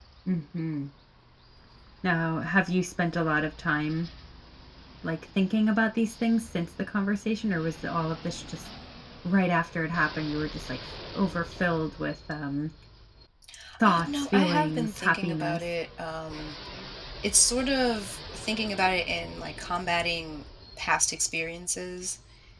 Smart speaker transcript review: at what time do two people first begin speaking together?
14 s

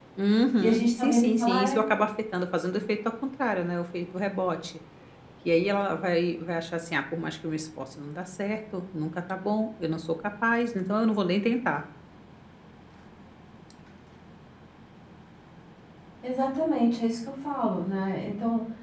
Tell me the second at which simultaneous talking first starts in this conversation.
1 s

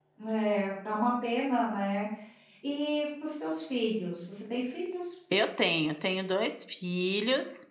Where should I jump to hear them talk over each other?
none

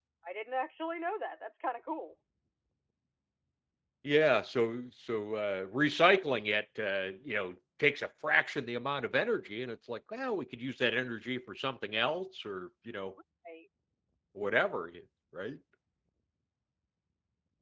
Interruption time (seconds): none

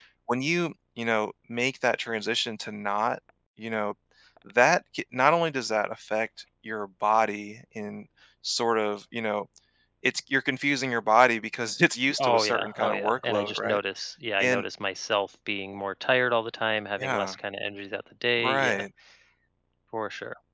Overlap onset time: 12 s

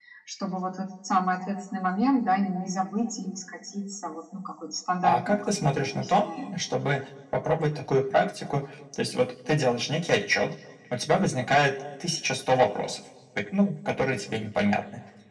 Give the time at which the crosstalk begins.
5 s

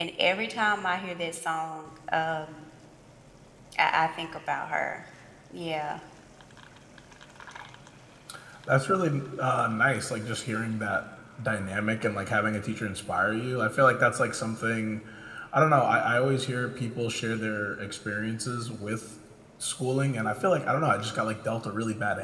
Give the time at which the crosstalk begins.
none

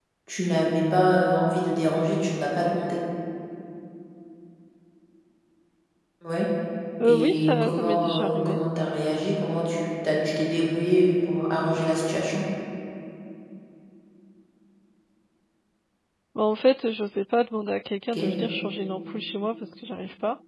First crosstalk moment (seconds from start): 7 s

